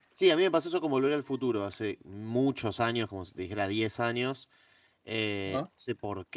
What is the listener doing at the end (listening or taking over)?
listening